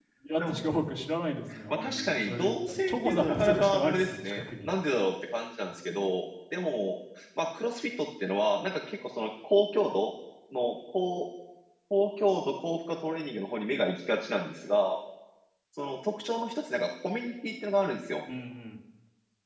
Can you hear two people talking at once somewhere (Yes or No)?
Yes